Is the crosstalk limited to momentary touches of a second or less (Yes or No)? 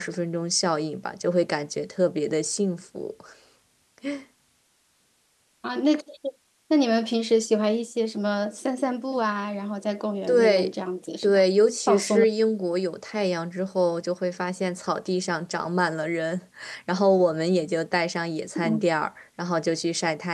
Yes